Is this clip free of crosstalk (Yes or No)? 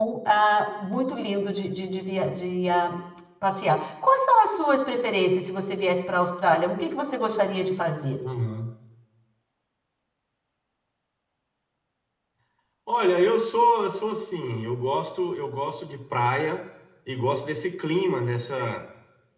Yes